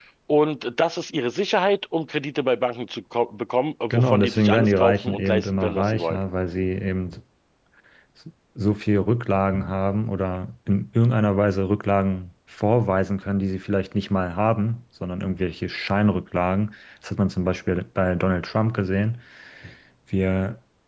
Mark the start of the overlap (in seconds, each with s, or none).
3.9 s